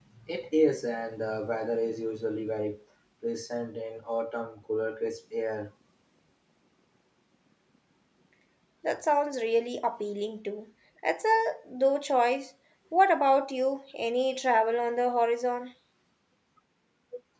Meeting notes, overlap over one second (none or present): none